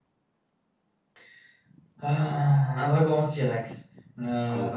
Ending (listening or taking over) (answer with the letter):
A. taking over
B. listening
A